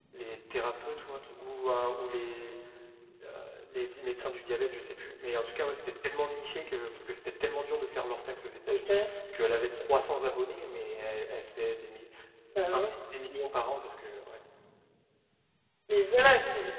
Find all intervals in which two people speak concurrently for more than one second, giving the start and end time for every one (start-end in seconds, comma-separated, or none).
none